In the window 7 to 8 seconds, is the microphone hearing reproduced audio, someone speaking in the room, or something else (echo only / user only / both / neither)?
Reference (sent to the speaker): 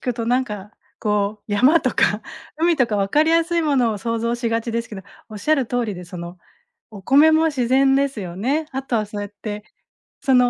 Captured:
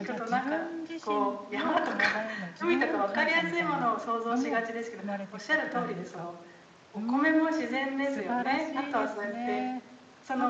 both